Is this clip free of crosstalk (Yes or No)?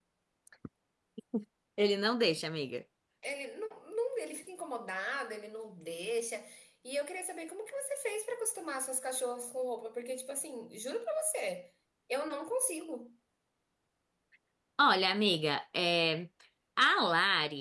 Yes